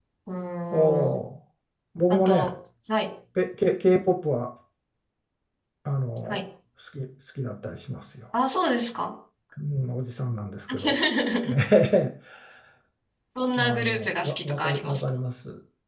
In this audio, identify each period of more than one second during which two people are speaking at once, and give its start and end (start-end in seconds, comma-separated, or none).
13.6-15.0